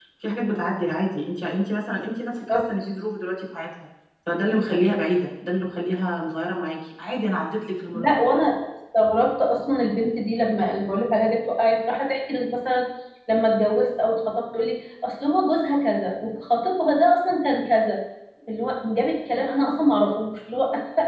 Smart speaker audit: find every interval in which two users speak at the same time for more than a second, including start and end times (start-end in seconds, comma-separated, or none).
none